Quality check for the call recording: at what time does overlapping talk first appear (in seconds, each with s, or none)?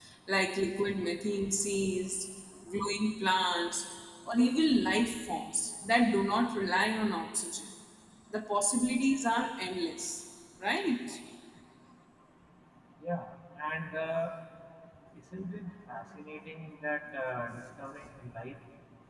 none